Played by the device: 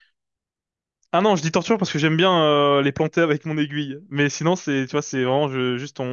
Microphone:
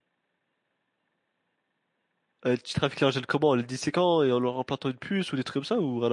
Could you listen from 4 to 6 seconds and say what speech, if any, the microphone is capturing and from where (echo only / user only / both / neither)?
user only